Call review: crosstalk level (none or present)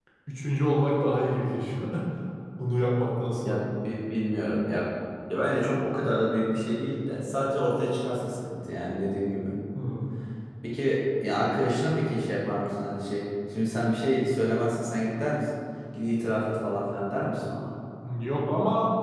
none